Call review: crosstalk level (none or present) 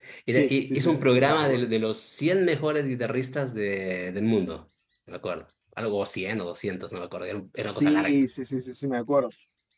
present